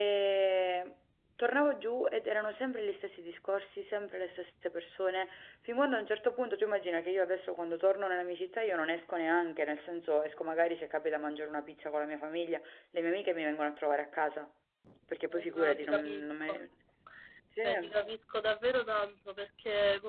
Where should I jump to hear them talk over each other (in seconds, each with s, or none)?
15.3 s